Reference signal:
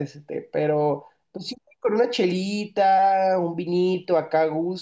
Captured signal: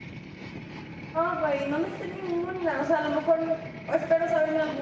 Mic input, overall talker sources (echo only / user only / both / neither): user only